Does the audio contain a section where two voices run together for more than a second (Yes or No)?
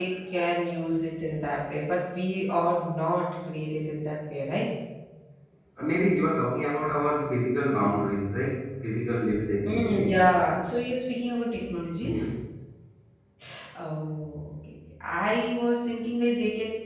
No